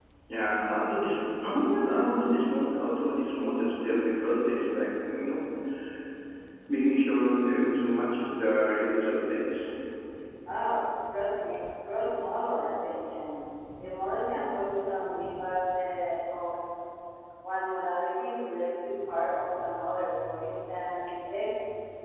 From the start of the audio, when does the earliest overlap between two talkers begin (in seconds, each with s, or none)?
none